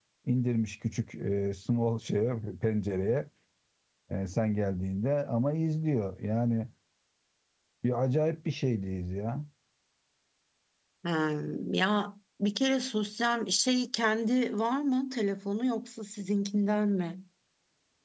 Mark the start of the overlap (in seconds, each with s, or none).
none